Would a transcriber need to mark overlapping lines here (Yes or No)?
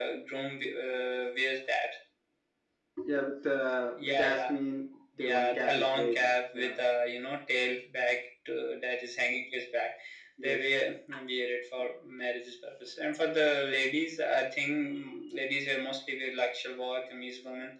Yes